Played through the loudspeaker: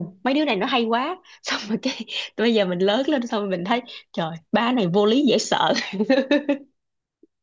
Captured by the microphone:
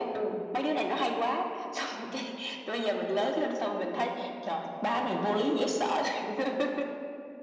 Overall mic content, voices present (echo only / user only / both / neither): echo only